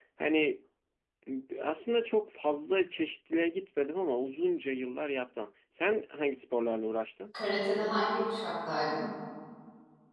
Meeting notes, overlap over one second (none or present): none